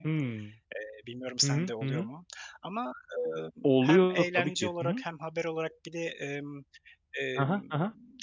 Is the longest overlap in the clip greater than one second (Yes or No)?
Yes